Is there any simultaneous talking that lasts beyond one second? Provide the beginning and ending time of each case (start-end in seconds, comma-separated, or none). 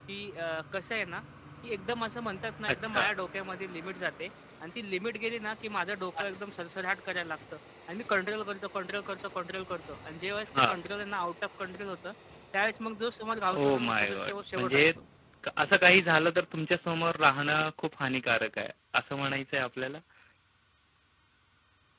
13.6-14.8